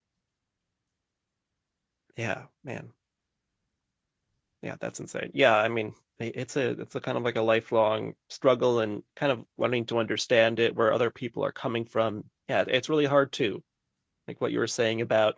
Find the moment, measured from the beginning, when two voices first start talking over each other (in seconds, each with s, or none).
none